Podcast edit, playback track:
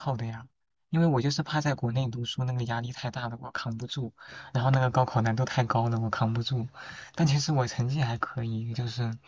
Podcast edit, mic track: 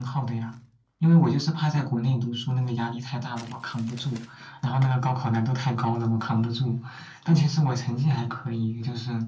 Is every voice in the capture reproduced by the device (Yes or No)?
Yes